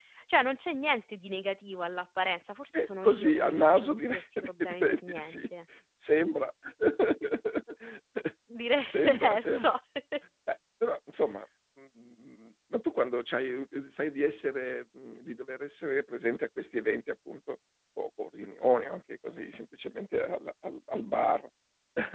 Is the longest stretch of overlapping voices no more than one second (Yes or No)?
No